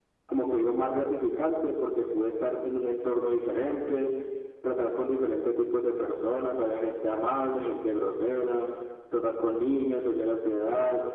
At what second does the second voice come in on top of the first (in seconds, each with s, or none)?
none